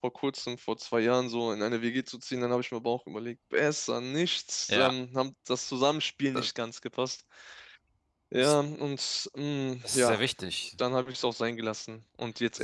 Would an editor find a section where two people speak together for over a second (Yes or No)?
No